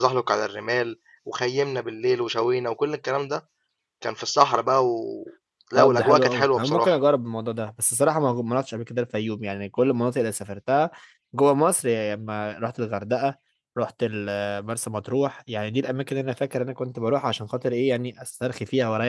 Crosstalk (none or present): present